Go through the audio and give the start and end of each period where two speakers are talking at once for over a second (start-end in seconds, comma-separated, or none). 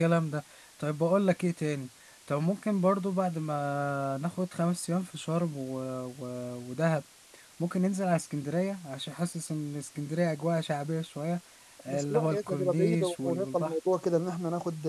11.9-13.7